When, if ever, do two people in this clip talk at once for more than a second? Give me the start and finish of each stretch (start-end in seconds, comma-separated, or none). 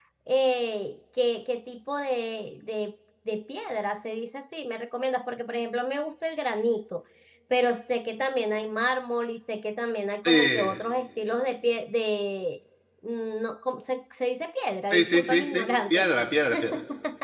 14.9-16.1